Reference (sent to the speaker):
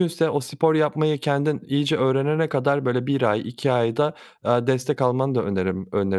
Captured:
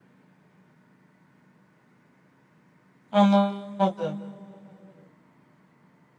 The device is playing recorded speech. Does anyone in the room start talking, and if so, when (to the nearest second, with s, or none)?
3 s